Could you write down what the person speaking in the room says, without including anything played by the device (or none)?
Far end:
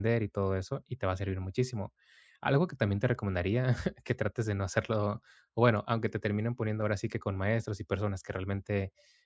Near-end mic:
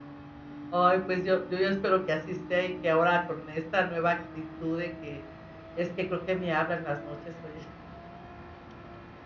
Ay, pues yo yo ya espero que así sea y que ahora con esta nueva actitud de que es que creo que me habla en las noches, oye.